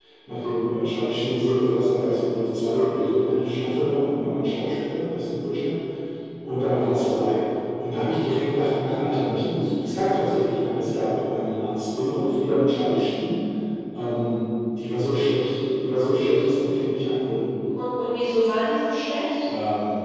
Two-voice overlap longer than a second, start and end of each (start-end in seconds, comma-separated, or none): none